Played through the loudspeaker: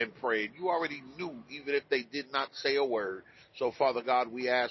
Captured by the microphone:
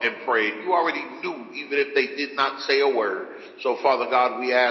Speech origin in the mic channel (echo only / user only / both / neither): echo only